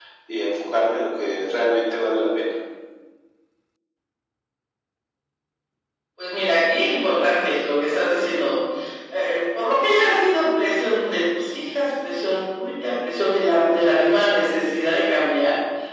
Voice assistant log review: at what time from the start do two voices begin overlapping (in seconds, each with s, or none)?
none